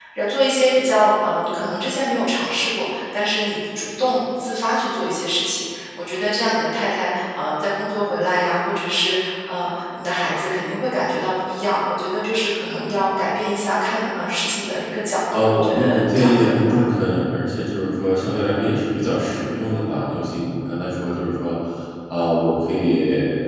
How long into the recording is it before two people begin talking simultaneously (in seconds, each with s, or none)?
15.3 s